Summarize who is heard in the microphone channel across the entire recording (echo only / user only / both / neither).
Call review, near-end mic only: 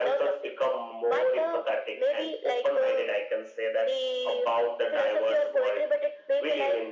echo only